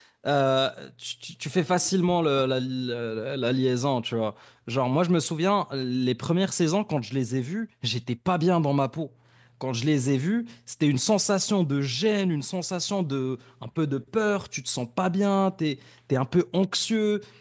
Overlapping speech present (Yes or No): No